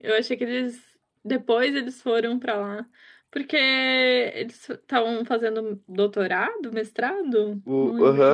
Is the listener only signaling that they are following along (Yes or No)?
No